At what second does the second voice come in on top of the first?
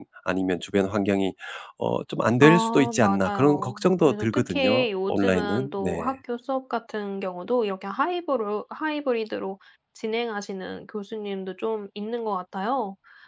2.4 s

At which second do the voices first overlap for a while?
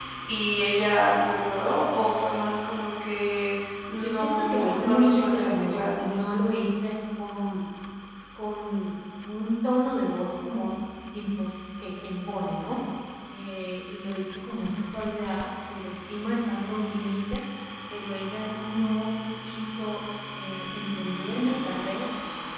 4.0 s

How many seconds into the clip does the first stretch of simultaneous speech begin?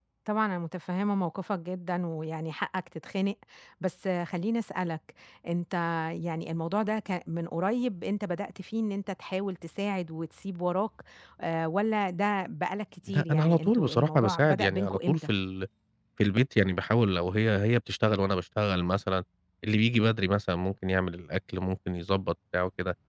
13.1 s

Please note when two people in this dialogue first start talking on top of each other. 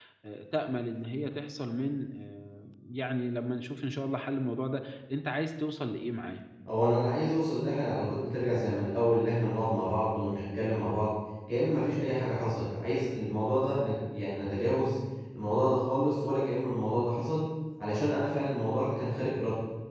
none

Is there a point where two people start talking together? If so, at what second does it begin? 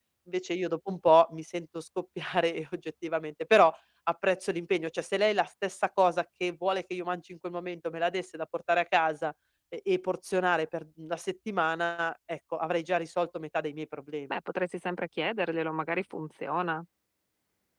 none

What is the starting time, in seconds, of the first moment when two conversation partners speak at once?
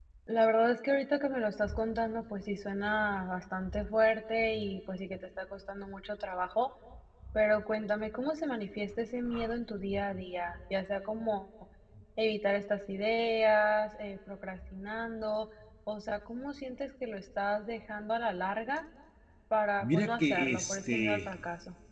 19.8 s

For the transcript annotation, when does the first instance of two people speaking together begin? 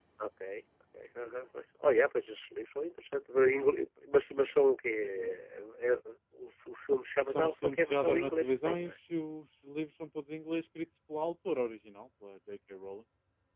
7.3 s

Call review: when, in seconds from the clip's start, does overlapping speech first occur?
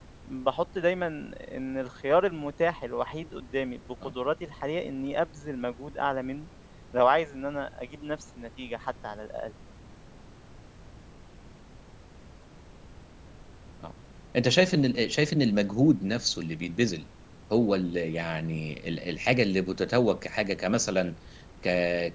none

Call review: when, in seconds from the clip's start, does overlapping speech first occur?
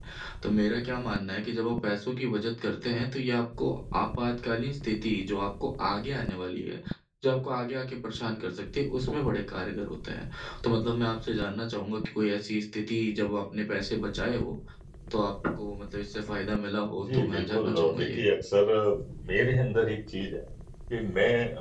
17.0 s

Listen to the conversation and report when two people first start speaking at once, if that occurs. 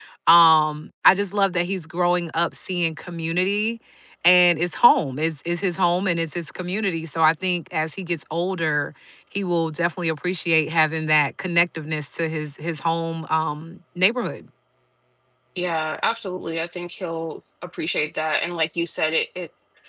none

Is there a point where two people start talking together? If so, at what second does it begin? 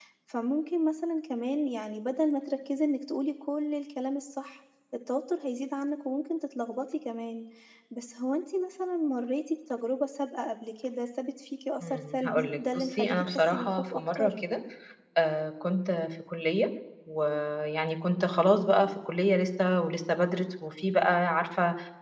11.8 s

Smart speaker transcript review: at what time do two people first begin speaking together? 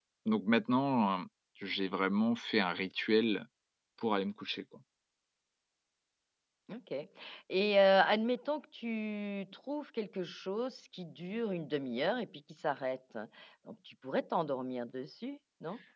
none

